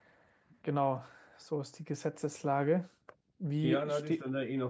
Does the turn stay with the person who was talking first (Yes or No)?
No